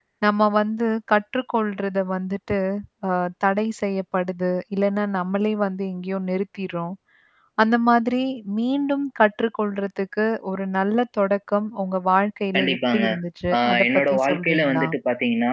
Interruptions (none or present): present